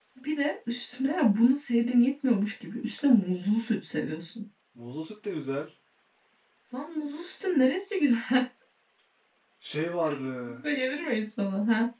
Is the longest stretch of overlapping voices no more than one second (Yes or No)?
Yes